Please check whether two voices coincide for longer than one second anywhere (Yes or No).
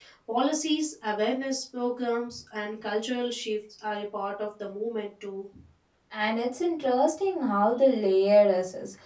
No